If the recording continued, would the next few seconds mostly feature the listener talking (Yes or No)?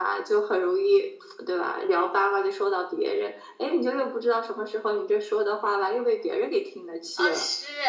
Yes